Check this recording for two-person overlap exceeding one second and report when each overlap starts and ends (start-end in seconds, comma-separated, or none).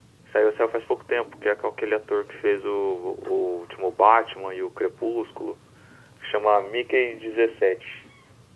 none